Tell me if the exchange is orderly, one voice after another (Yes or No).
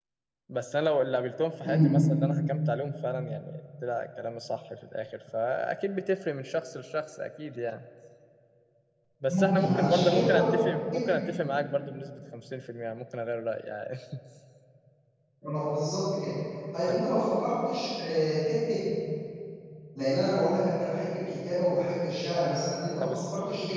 No